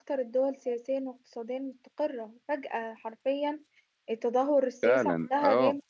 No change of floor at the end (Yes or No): No